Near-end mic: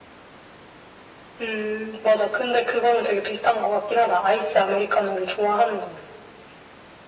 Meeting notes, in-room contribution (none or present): none